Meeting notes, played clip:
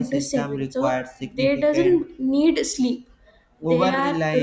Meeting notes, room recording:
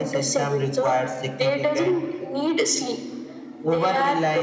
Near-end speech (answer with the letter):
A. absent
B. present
A